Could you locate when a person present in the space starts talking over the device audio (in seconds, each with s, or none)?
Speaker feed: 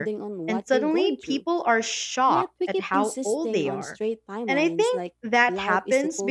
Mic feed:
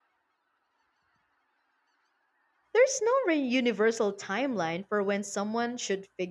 2.7 s